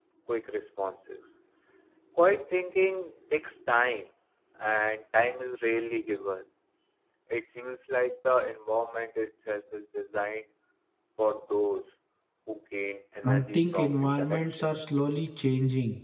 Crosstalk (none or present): present